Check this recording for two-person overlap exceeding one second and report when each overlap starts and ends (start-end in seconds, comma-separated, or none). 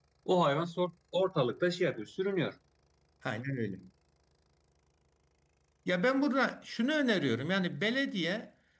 none